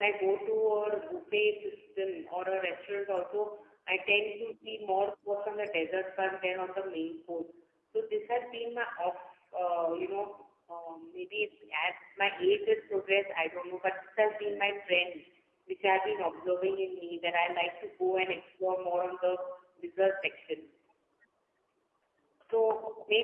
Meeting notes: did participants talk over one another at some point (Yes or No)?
No